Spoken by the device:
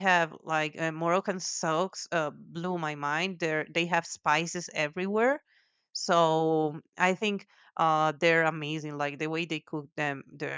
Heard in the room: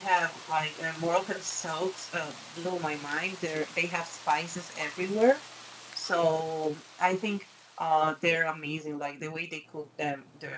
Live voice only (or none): none